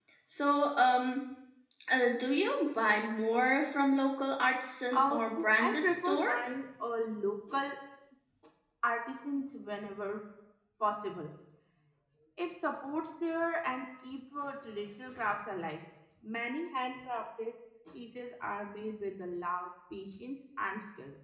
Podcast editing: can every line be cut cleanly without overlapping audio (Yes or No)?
No